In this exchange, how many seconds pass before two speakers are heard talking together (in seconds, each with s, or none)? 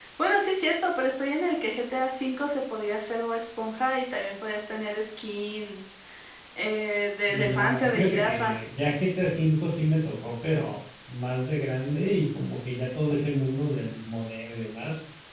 7.3 s